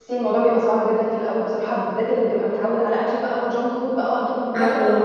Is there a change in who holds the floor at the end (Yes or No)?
No